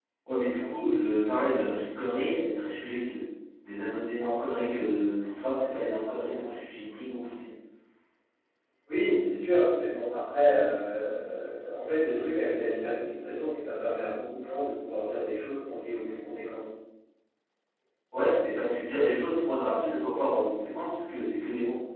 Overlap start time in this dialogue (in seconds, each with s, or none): none